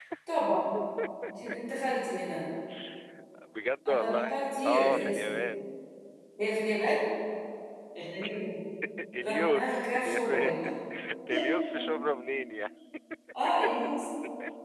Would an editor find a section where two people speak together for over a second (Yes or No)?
Yes